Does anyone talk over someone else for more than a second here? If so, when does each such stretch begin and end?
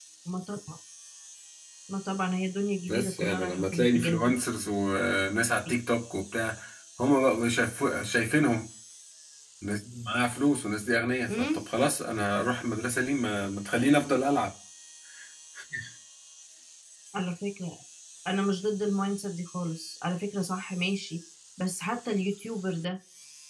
2.9-4.3

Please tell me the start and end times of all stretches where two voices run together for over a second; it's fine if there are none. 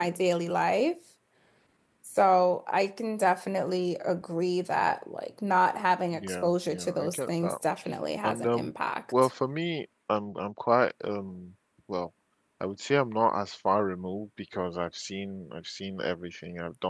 6.1-7.6

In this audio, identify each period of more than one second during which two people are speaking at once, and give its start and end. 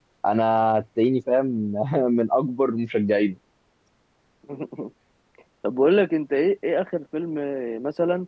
none

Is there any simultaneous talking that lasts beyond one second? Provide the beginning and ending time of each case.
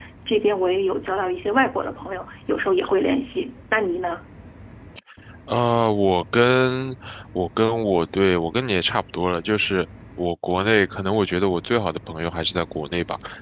none

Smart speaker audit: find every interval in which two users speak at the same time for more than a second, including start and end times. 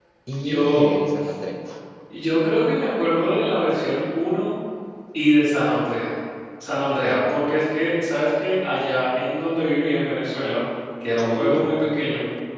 none

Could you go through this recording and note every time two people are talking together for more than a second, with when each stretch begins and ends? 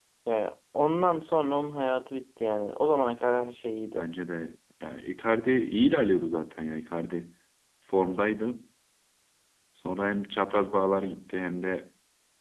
none

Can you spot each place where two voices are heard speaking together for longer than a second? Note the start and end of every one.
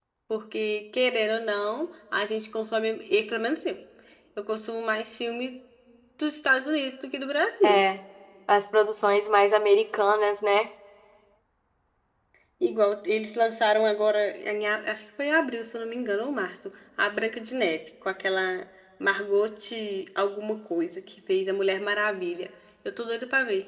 none

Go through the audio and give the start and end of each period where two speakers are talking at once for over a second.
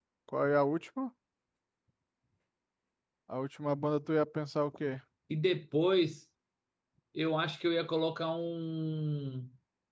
none

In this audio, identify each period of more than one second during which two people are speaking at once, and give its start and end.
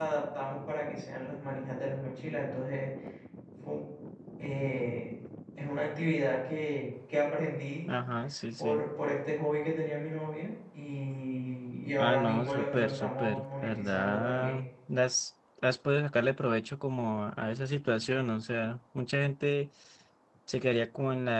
12.0-14.6

